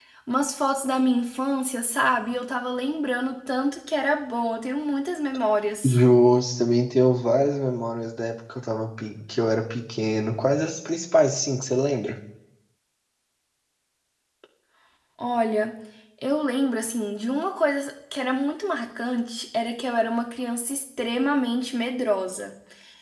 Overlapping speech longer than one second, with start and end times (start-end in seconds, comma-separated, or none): none